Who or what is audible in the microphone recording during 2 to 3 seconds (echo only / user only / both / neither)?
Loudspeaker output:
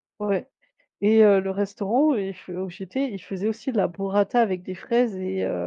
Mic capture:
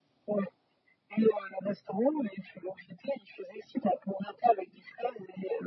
echo only